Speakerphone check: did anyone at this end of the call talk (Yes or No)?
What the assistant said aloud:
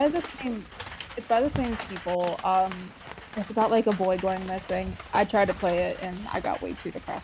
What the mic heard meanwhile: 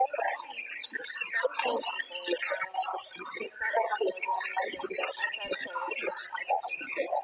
No